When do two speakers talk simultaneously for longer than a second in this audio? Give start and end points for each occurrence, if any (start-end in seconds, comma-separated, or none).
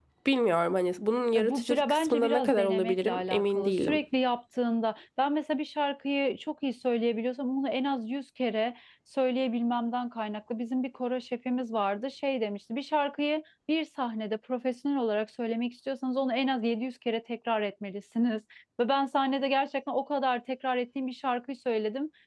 1.4-4.0